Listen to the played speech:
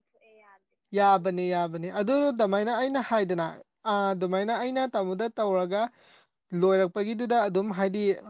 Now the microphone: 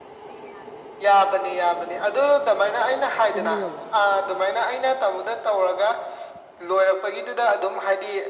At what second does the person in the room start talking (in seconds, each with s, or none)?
3.3 s